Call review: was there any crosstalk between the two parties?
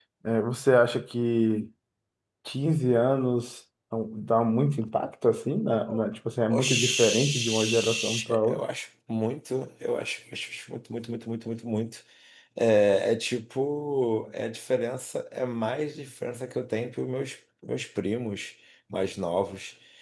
Yes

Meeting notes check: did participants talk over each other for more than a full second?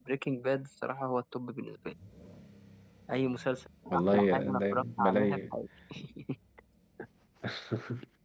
Yes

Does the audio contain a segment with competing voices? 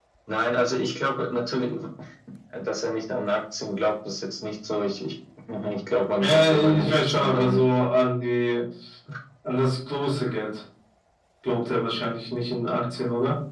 Yes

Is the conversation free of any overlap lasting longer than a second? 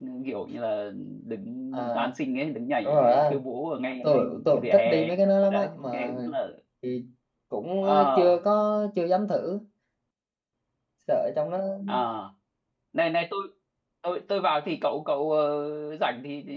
No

